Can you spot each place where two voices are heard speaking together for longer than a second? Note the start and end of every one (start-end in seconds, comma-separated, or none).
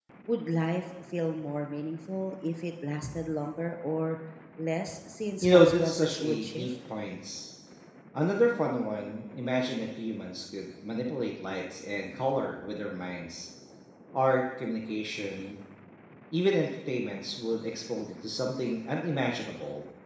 5.4-6.7